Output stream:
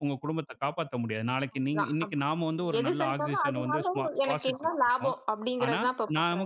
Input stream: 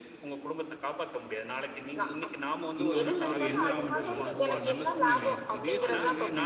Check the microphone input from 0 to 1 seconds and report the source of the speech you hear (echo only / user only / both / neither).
echo only